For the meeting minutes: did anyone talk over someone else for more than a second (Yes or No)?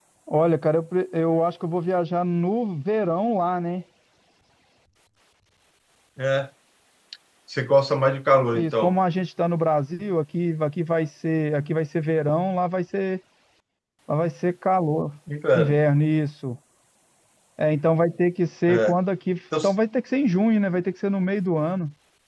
No